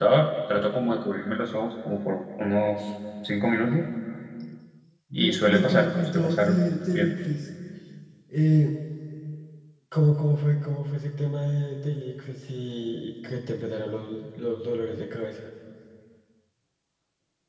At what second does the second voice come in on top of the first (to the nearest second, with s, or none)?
5 s